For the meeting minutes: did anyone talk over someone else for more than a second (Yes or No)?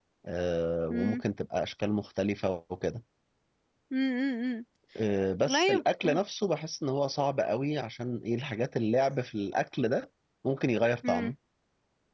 No